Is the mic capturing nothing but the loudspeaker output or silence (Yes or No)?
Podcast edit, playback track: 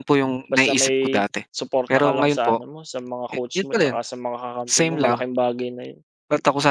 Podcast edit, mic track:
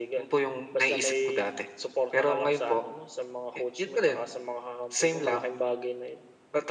Yes